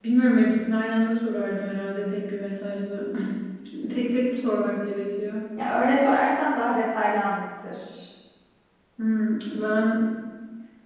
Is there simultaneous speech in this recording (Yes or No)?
No